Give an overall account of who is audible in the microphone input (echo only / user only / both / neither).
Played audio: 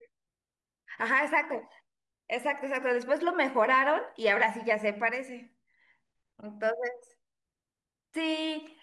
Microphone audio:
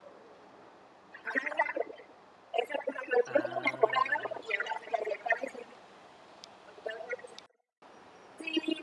both